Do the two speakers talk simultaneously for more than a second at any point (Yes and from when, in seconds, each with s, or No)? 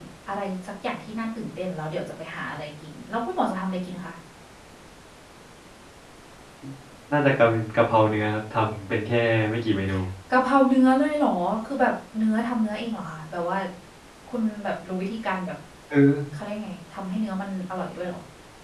No